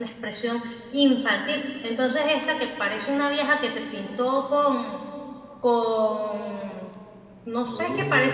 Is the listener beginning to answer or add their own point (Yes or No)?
No